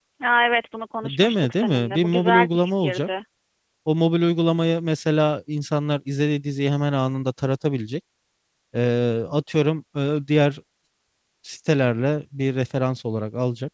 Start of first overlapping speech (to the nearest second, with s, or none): 1 s